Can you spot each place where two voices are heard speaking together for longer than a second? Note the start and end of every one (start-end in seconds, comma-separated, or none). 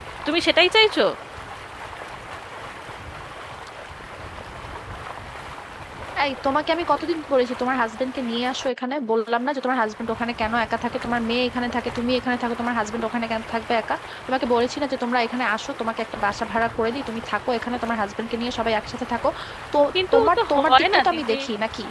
20.1-21.3